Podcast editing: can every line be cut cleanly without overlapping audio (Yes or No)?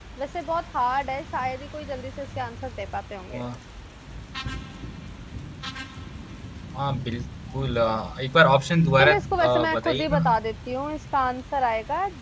No